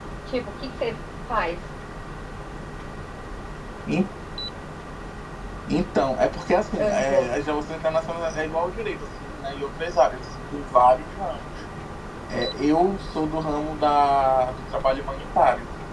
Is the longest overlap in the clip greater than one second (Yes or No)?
No